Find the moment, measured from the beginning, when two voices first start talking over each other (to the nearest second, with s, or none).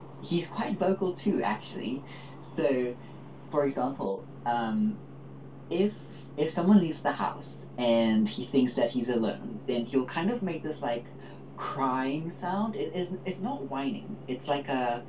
none